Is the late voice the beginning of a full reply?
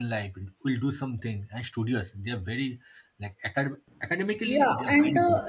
Yes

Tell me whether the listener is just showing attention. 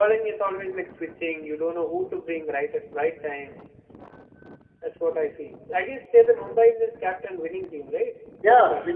No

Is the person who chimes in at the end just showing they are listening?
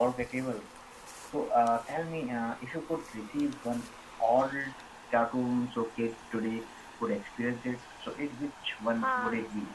No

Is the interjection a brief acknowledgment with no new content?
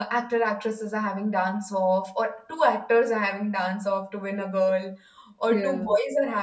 Yes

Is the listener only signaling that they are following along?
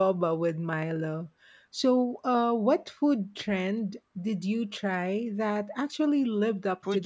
No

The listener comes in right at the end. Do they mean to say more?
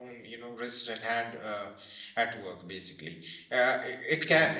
No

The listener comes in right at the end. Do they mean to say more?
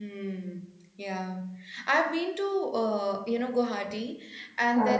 No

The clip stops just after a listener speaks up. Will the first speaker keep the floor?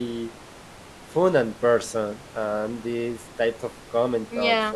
Yes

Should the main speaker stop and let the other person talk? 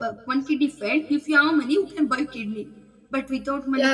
Yes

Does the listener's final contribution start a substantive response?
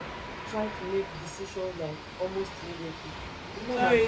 Yes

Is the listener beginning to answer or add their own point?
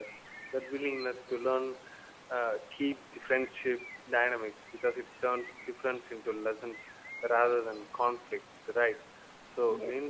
No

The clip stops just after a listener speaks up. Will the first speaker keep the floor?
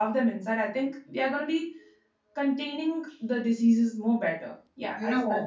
No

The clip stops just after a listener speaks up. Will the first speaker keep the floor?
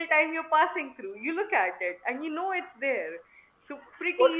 No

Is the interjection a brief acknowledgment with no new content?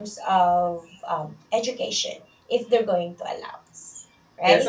No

